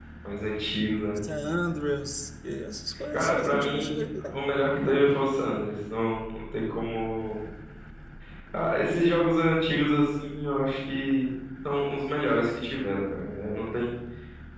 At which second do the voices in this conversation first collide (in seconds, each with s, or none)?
3.1 s